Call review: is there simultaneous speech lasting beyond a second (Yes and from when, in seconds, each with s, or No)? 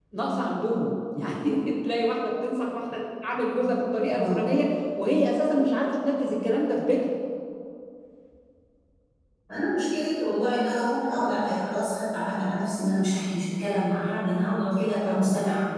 No